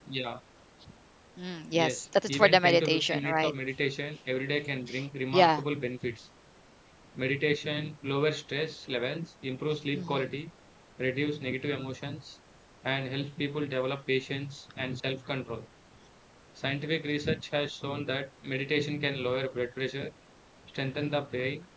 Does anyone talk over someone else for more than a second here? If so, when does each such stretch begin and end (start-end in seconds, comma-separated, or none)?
1.7-3.5